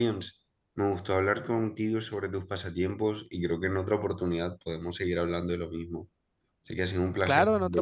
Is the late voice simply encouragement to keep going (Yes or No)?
No